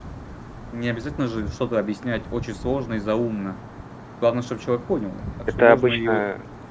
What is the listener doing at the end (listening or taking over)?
taking over